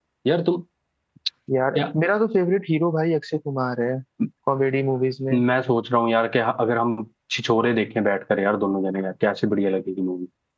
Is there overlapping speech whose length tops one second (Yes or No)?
No